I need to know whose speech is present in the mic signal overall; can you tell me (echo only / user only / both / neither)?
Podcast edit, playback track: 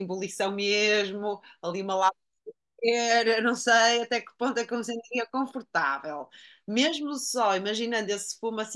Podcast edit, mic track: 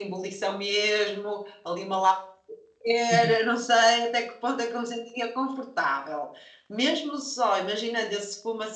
both